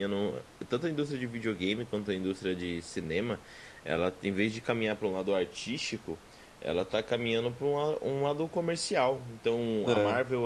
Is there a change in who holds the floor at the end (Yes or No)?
No